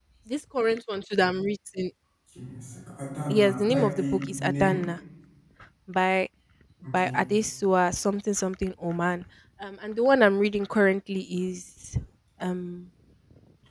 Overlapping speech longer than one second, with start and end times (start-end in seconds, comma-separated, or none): 3.3-4.8